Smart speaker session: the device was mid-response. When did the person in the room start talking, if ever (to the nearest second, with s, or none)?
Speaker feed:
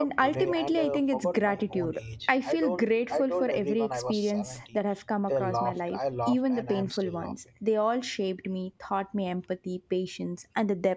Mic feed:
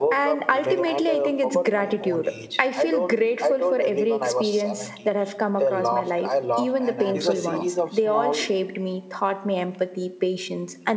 7 s